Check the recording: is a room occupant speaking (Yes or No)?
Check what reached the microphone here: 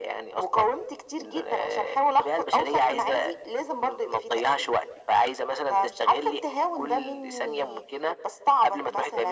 No